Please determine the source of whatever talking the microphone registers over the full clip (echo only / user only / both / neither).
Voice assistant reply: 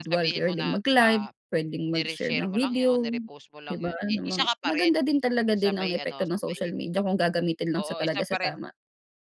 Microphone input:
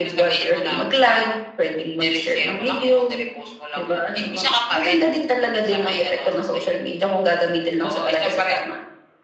echo only